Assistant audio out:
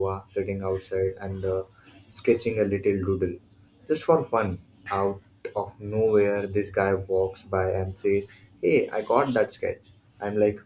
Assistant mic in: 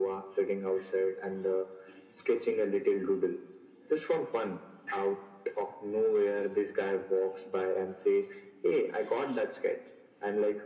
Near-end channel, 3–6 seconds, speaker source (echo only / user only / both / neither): echo only